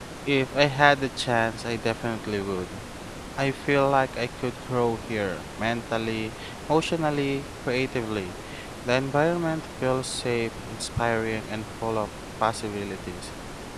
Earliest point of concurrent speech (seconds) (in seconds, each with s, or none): none